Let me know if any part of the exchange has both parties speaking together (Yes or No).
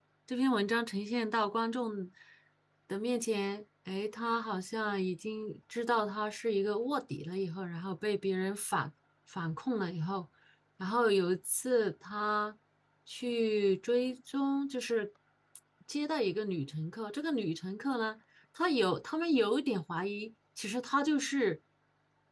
No